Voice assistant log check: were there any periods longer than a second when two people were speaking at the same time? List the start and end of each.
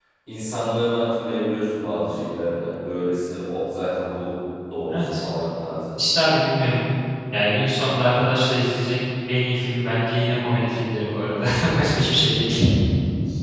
none

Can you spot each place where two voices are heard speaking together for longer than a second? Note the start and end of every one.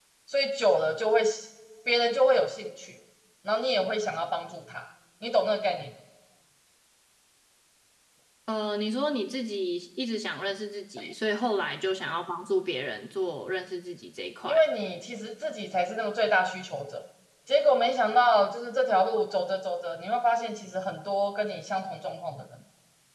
none

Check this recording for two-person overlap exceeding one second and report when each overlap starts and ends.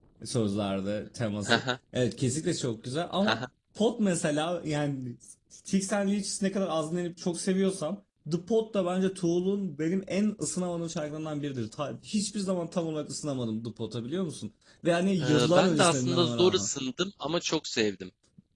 15.2-16.7

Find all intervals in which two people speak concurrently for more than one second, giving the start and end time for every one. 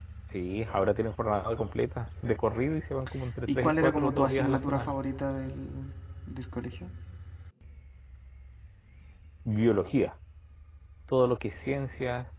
3.5-5.0

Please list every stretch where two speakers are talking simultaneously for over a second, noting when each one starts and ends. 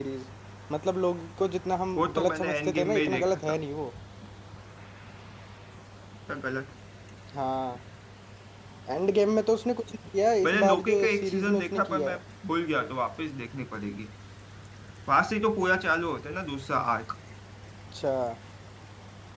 1.9-3.6, 10.4-12.2

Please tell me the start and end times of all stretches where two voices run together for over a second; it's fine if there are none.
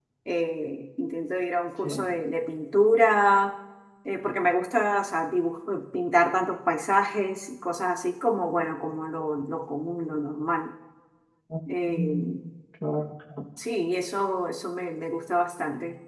none

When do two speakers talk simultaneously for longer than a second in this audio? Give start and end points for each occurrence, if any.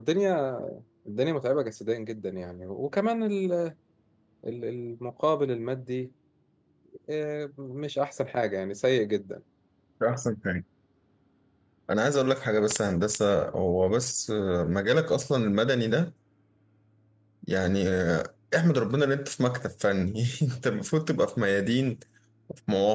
none

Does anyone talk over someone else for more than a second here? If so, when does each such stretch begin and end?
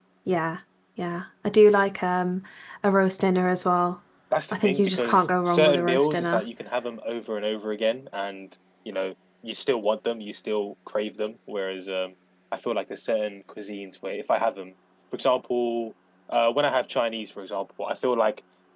4.5-6.4

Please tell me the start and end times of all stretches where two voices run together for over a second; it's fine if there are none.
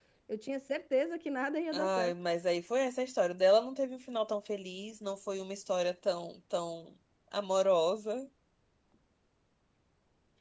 none

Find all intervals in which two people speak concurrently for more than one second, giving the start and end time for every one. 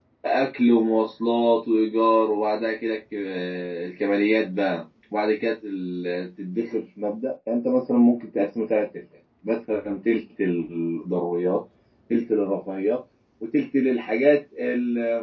none

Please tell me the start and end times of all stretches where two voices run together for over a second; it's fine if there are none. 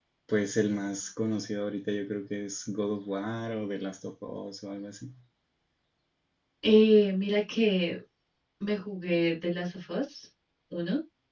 none

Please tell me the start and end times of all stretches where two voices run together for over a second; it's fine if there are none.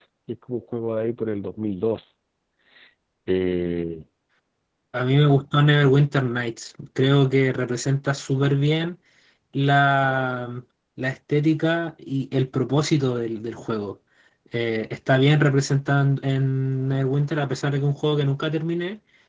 none

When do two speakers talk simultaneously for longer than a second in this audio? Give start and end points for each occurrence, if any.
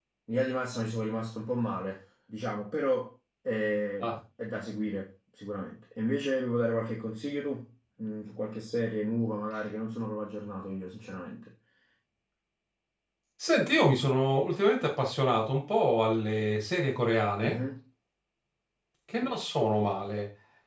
none

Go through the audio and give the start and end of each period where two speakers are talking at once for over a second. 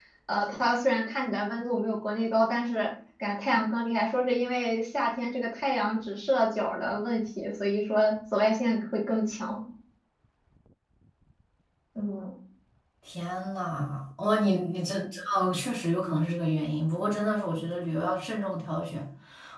none

